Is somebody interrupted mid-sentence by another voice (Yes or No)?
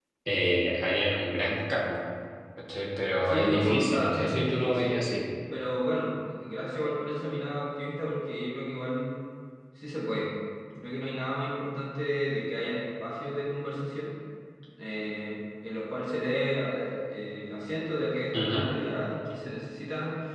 Yes